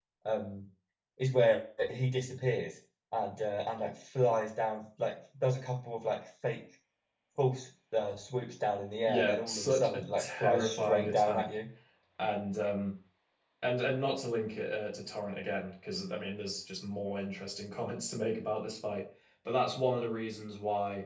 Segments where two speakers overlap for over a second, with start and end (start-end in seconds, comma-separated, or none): 9.1-11.5